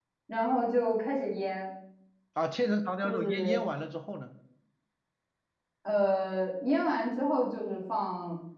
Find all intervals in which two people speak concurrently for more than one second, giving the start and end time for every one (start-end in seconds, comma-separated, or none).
none